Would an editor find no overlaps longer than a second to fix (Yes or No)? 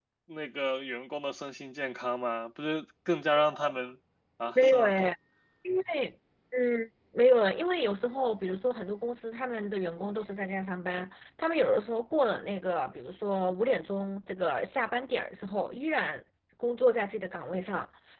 Yes